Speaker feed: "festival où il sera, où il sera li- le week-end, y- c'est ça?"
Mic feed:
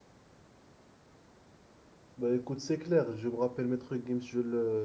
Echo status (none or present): none